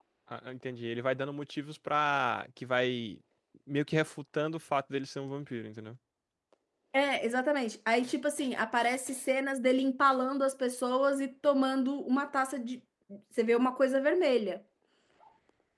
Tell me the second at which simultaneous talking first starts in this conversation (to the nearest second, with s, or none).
none